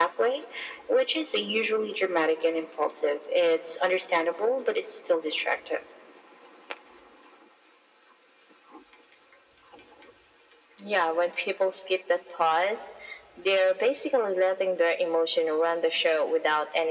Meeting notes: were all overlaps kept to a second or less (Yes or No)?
Yes